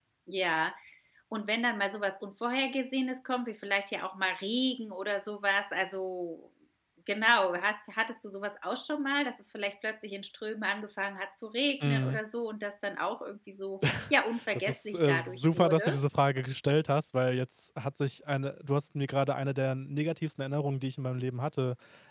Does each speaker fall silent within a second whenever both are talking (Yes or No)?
No